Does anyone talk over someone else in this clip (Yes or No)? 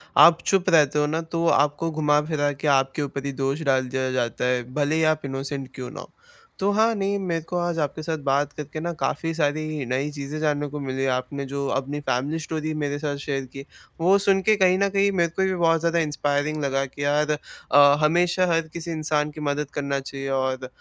No